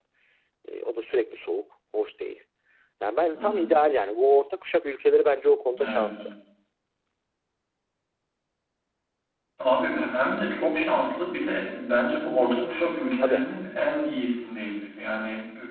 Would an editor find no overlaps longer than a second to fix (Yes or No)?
Yes